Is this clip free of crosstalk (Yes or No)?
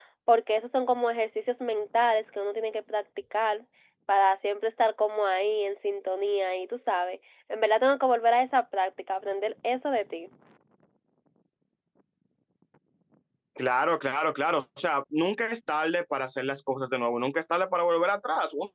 Yes